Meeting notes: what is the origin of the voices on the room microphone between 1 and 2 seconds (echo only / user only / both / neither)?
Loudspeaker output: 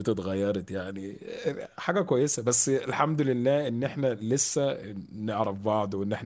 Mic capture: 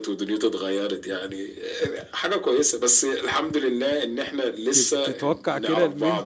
echo only